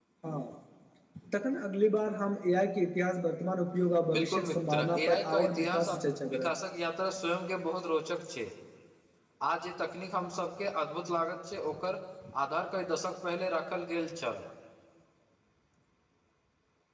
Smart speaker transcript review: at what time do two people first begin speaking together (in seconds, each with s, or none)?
4.1 s